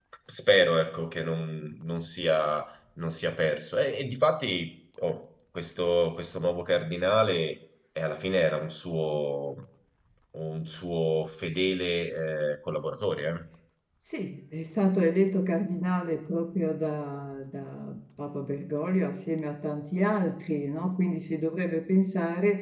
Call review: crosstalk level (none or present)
none